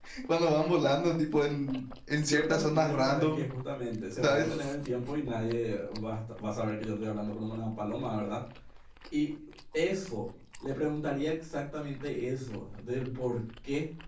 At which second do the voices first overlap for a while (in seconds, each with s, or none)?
2.2 s